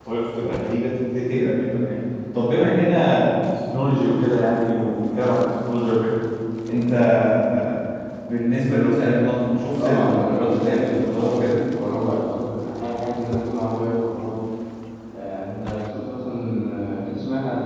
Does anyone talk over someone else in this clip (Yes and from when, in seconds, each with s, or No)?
Yes, from 9.8 s